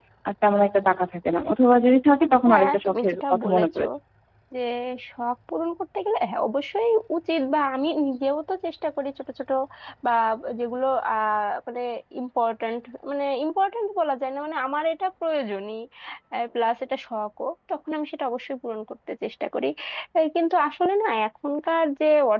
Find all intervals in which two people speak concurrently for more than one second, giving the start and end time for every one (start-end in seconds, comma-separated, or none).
2.5-3.9